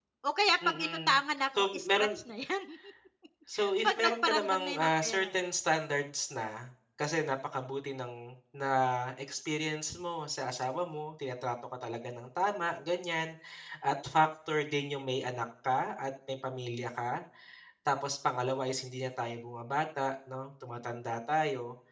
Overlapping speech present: Yes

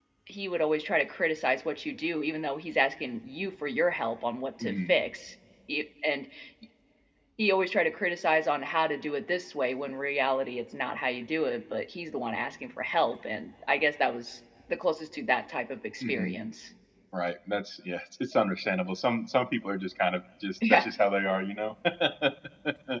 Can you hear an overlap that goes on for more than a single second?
No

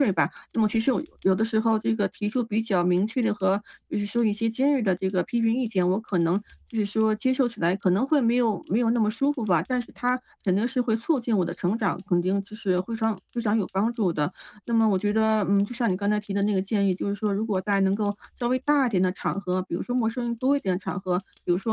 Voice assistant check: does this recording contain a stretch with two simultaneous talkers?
No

